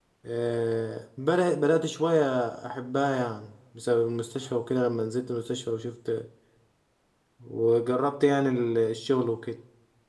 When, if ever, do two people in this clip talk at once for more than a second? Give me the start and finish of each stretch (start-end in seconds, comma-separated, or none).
none